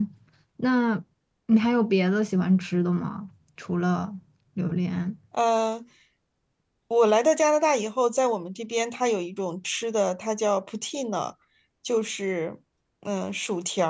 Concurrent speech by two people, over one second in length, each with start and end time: none

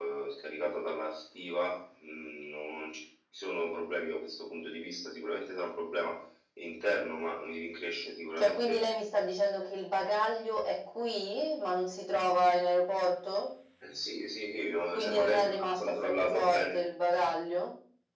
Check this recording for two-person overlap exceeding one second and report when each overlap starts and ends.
14.9-16.8

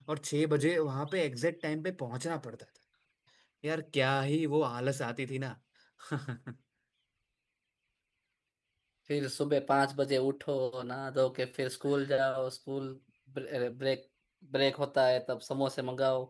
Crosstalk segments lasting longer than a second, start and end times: none

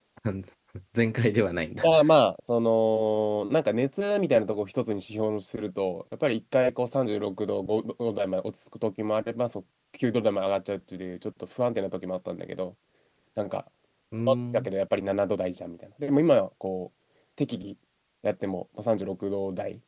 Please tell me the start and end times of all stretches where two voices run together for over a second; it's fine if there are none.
none

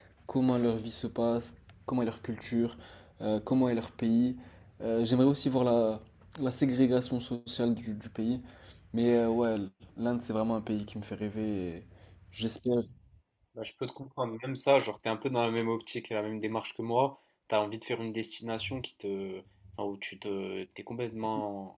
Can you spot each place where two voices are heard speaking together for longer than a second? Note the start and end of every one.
none

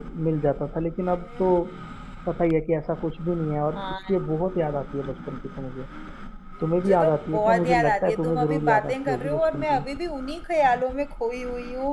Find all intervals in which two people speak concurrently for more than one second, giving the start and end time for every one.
6.8-9.8

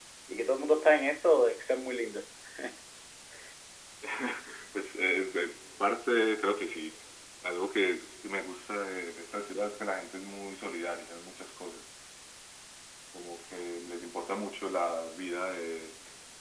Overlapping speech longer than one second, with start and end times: none

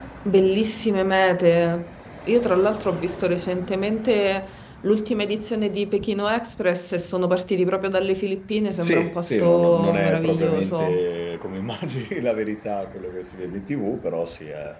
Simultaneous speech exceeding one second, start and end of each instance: 8.8-11.0

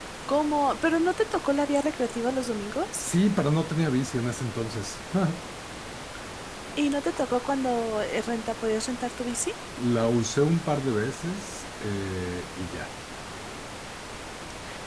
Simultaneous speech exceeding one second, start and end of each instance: none

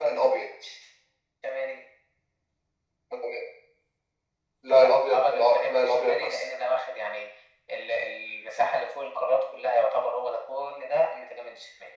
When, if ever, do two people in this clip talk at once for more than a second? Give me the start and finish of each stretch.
4.8-6.4

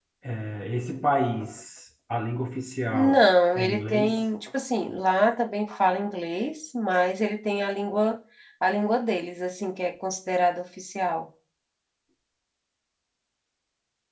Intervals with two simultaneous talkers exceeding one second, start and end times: 2.9-4.3

